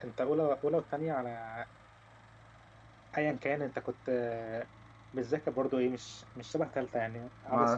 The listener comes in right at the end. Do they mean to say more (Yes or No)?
Yes